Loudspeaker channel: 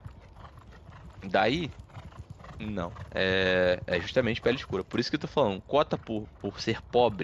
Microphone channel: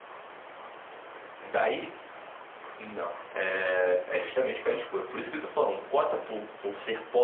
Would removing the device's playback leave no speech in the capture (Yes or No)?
Yes